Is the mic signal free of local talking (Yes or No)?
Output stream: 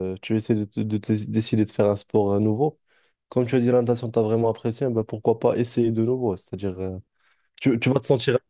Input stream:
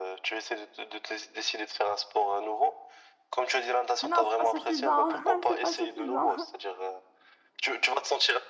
No